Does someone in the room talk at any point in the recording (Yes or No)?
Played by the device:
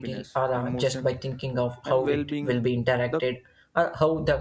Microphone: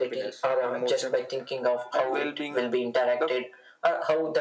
No